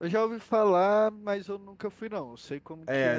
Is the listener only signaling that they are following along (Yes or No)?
No